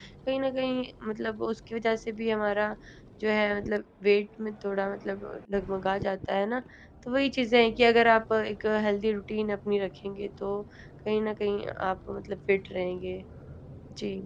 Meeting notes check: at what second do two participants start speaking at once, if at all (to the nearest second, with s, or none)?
none